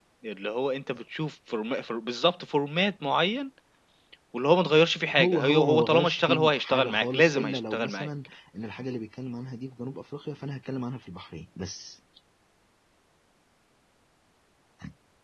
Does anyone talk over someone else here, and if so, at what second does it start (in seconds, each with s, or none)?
5.2 s